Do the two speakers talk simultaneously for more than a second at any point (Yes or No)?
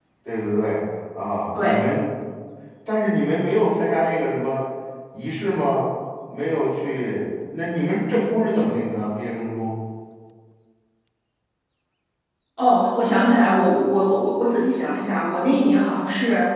No